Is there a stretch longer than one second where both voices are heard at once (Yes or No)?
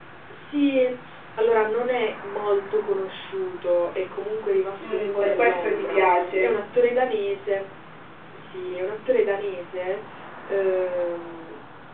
Yes